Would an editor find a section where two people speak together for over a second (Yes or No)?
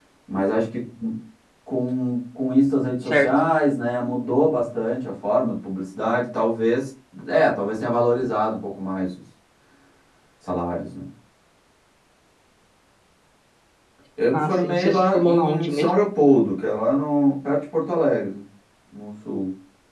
Yes